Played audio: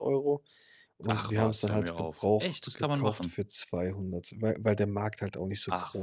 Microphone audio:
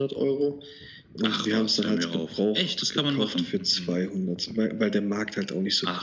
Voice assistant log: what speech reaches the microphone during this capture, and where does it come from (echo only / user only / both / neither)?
both